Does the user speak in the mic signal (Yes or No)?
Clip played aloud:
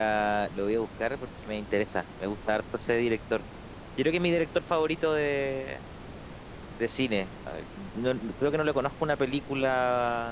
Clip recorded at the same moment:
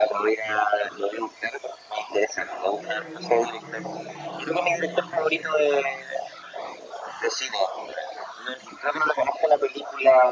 Yes